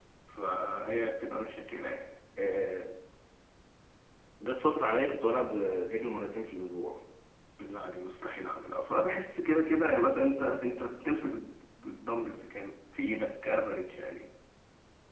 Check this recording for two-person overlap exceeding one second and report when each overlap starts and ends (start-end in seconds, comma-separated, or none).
none